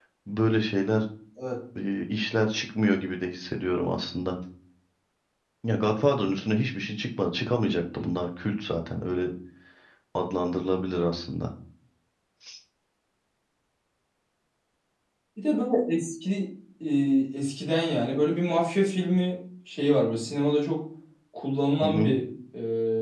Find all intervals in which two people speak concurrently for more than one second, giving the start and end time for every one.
none

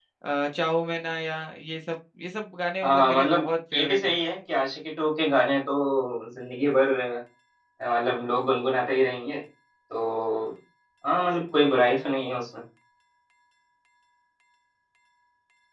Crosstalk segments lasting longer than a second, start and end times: 2.8-4.2

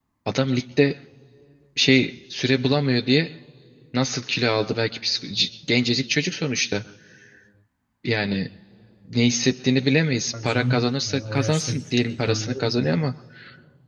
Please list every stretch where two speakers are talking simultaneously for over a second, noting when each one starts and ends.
10.4-12.9

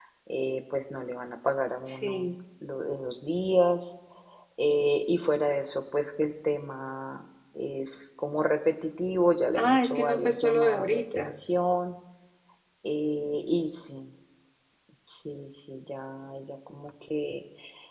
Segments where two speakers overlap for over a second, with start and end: 9.6-11.3

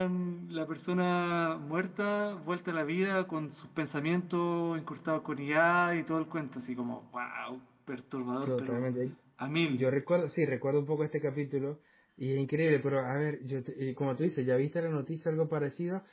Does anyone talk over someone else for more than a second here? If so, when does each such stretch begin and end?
none

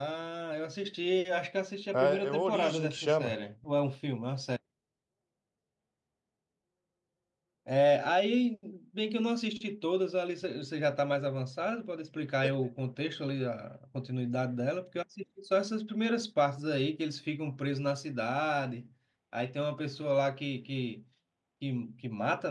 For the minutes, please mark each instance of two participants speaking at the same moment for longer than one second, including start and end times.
1.9-3.3

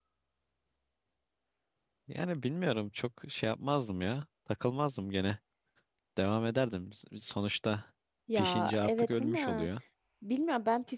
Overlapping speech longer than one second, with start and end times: 8.3-9.7

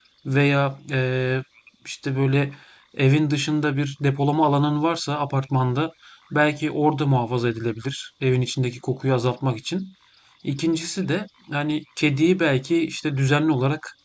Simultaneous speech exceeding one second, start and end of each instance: none

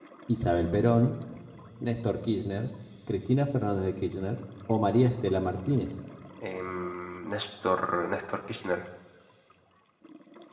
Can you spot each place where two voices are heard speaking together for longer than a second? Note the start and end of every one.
none

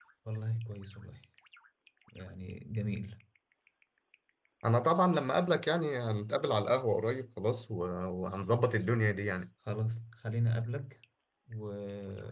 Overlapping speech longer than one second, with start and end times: none

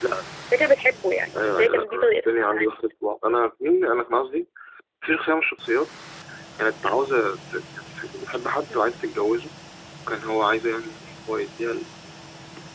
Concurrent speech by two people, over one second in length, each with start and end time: 1.4-2.7

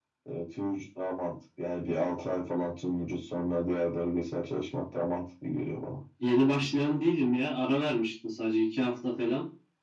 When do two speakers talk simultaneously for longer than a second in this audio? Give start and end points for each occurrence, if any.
none

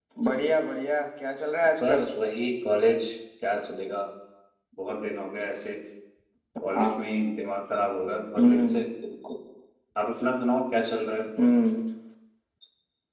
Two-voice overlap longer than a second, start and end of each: none

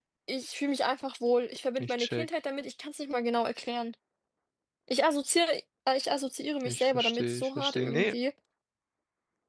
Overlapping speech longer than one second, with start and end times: 6.6-8.1

